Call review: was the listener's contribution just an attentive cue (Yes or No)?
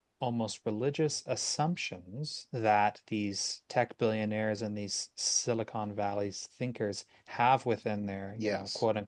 Yes